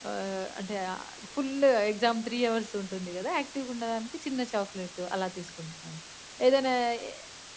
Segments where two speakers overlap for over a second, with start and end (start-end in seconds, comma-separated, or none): none